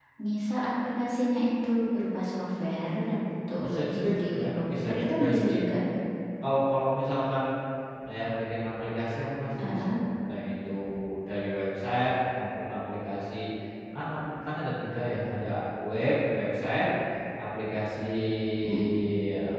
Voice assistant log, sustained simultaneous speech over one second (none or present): present